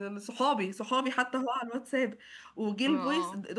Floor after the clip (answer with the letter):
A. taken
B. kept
B